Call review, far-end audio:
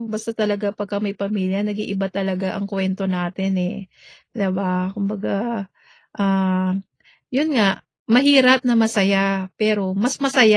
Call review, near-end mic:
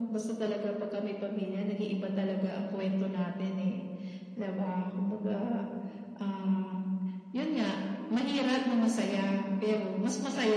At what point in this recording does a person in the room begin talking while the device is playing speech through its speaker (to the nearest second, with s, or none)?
none